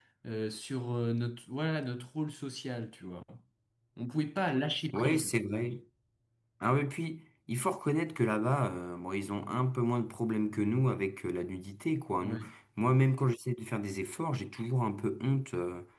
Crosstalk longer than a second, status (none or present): none